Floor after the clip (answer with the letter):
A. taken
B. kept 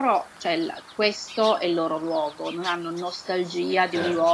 B